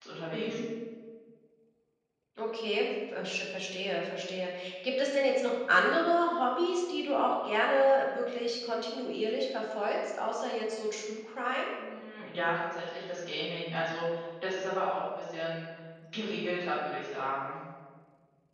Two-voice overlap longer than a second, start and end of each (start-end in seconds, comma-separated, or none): none